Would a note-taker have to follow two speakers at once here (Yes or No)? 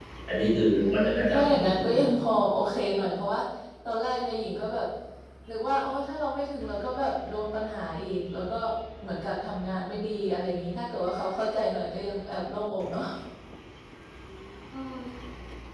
Yes